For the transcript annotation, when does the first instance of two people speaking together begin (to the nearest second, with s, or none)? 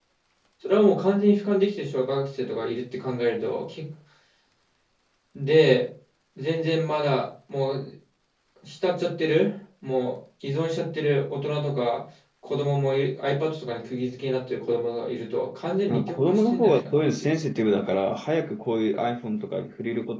16 s